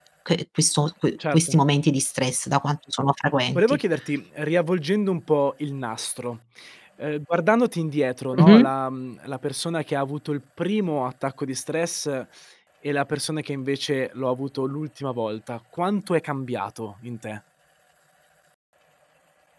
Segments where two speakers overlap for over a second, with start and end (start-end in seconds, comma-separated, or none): none